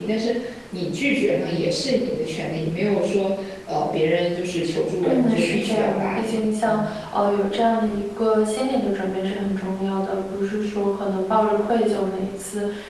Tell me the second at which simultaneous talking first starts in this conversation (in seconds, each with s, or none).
5.0 s